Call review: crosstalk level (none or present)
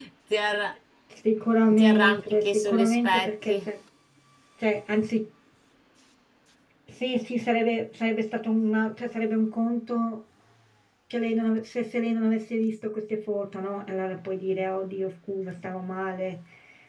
present